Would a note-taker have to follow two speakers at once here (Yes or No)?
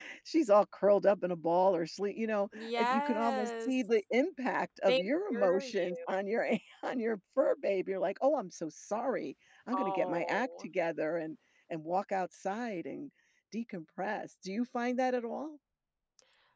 Yes